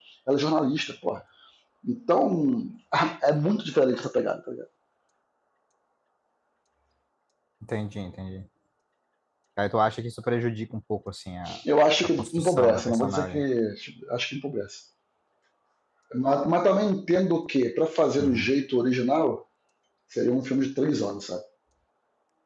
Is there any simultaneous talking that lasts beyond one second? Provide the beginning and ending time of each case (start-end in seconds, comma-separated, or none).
12.2-13.4